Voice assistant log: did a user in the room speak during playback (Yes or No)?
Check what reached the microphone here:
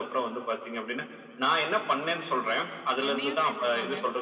Yes